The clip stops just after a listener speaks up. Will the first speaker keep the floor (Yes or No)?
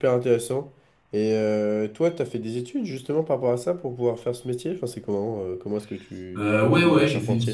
No